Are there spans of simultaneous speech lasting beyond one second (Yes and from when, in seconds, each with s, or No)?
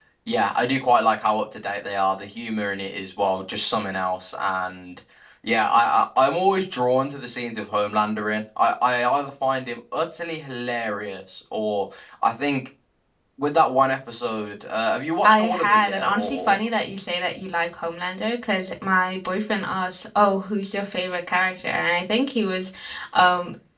Yes, from 15.2 s